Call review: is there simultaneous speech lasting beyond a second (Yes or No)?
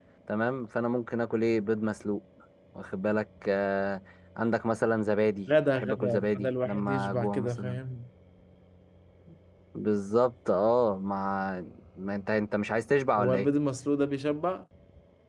Yes